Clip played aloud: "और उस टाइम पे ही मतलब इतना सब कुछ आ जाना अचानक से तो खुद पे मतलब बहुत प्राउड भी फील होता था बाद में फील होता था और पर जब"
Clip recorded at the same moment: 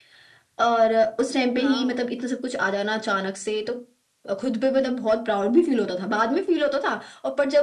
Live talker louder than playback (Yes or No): No